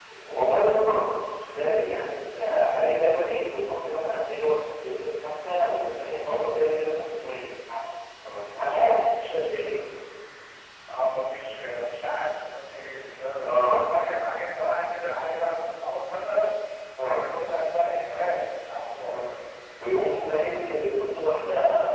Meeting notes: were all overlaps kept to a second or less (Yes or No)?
Yes